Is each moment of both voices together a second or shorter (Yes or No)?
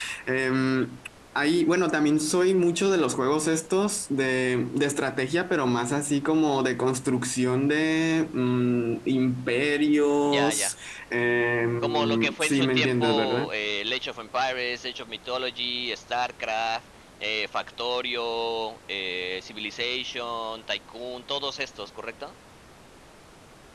No